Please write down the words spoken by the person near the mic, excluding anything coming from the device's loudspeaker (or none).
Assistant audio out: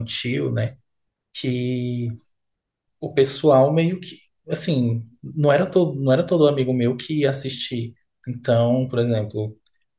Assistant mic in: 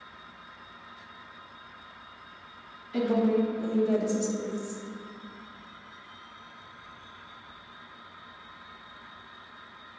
É bom, né? Lembrar dessas coisas.